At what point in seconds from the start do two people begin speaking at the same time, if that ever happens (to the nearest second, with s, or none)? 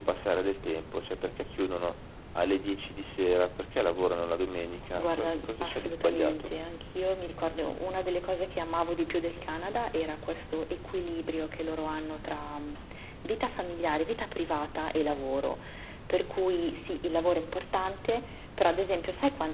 5 s